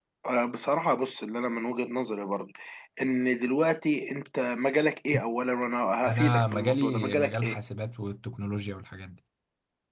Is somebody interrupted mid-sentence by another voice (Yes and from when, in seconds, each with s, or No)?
Yes, from 6.1 s